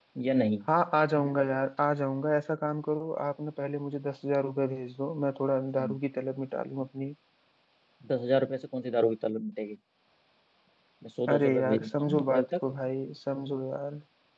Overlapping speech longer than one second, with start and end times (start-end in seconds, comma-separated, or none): 11.3-12.6